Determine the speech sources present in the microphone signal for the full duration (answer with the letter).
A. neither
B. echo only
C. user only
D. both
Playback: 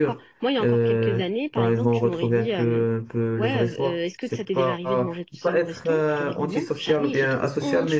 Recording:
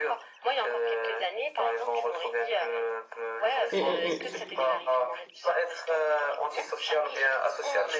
D